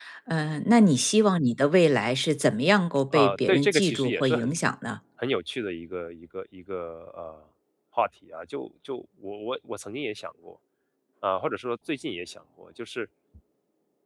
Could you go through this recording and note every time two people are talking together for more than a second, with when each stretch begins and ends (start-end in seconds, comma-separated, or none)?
3.1-4.5